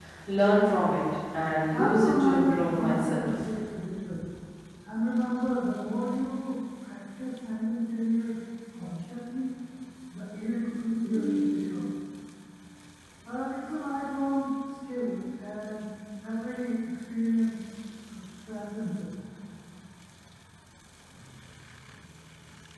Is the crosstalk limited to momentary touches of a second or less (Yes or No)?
No